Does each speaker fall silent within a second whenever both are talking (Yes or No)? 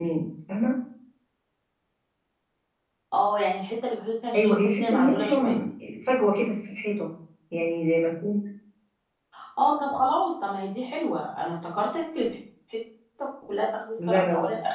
No